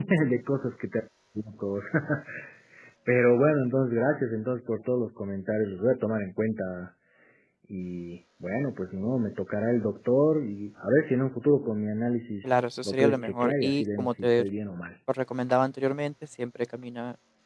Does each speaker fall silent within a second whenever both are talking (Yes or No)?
No